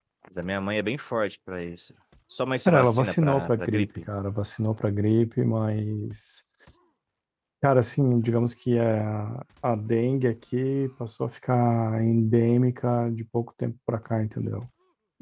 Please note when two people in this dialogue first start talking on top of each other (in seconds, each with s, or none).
2.6 s